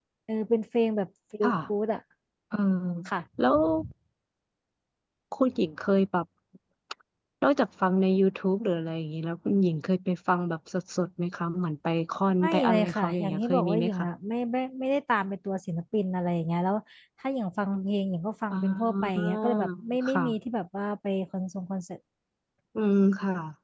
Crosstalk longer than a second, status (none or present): present